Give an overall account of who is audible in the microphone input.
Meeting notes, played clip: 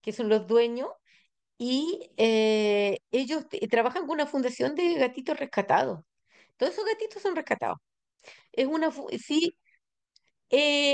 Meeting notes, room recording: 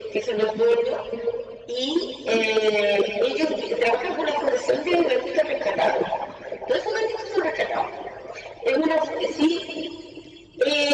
echo only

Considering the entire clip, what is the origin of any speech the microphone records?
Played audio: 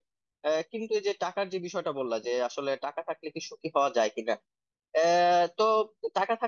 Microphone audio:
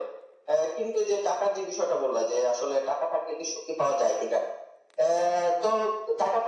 echo only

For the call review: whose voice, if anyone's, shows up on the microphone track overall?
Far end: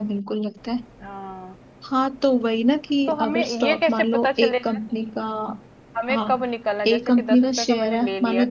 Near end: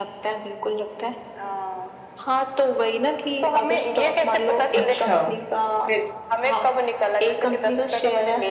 both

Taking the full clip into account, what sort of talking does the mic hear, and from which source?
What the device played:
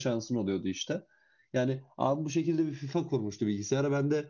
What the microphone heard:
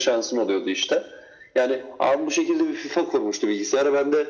echo only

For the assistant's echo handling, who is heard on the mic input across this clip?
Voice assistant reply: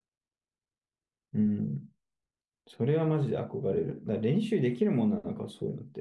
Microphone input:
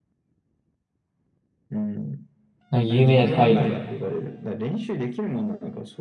both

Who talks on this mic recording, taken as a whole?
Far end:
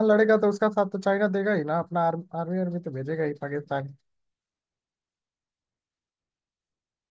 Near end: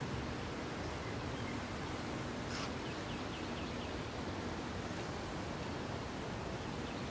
neither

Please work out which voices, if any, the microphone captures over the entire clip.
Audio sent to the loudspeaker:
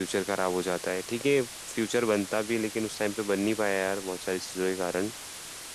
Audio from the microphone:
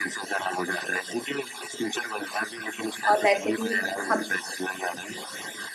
both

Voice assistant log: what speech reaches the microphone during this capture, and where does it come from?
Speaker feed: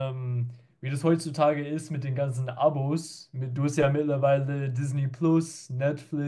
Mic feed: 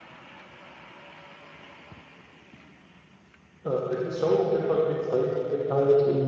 user only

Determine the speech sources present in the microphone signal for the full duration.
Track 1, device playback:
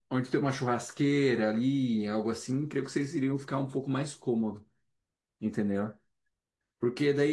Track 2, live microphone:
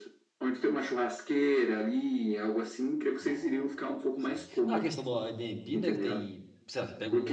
both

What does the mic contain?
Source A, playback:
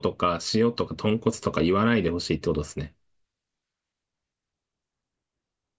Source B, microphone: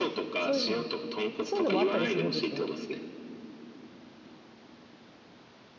both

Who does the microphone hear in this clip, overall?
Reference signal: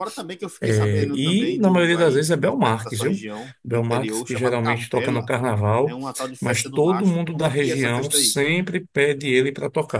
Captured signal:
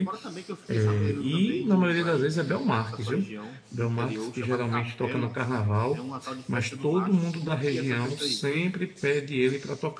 echo only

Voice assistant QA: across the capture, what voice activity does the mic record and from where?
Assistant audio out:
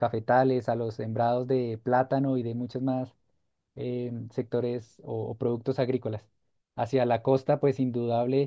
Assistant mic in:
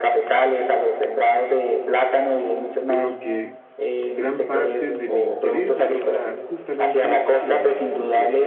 both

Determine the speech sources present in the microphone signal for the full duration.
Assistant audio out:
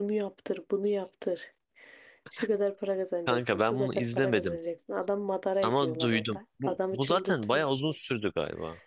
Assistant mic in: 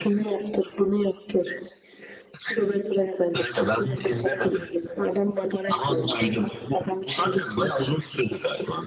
echo only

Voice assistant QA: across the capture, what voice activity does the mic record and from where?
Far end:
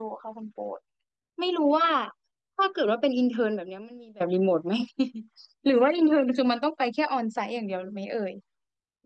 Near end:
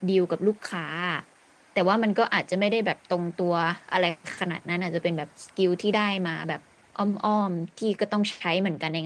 user only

